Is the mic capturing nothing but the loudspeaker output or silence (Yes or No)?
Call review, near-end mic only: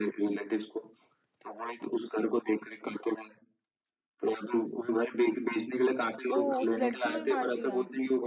No